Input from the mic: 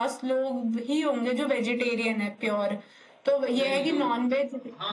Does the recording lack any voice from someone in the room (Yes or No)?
No